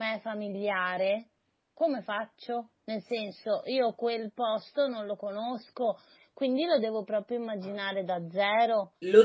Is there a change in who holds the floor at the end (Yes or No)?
Yes